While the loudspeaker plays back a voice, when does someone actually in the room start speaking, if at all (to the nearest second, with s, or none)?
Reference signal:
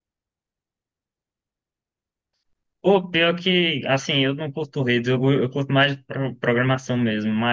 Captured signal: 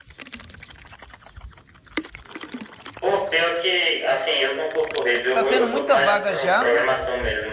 5 s